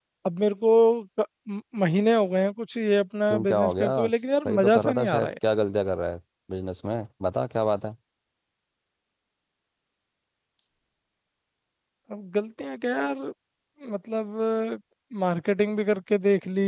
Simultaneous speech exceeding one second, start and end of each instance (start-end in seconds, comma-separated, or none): 3.3-5.3